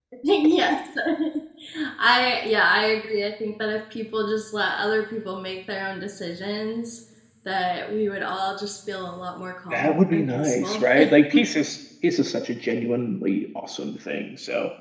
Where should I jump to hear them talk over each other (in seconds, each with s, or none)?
9.7 s